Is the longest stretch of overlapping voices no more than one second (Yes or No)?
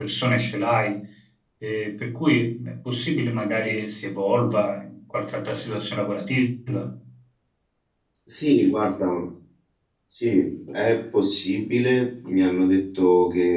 Yes